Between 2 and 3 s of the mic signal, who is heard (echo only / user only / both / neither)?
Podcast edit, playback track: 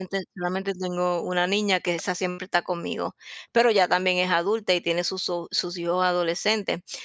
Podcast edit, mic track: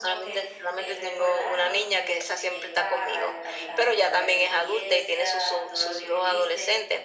both